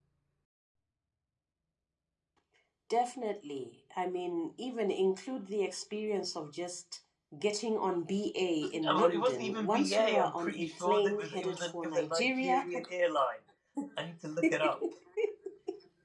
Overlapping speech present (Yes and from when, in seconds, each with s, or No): Yes, from 8.9 s